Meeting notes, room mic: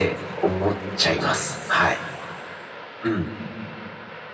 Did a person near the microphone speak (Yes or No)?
No